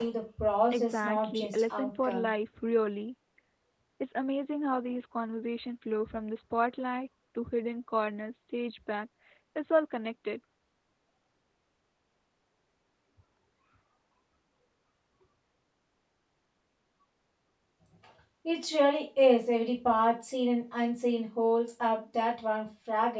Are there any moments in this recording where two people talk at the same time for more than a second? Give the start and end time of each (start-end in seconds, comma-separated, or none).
0.7-2.3